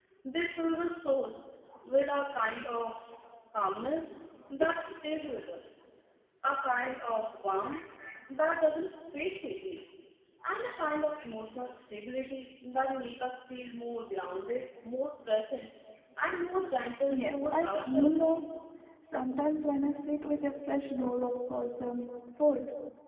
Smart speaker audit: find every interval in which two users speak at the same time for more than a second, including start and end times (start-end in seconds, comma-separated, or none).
17.1-18.3